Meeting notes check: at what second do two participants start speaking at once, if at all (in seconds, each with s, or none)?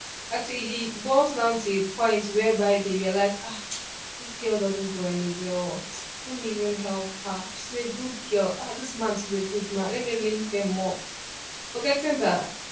none